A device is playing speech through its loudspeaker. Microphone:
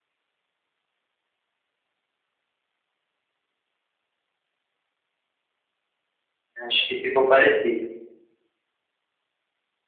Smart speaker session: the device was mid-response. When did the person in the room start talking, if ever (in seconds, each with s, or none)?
6.6 s